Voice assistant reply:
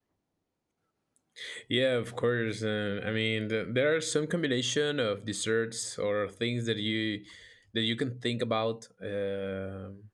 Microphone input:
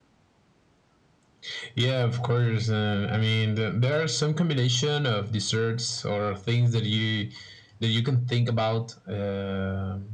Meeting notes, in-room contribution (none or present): none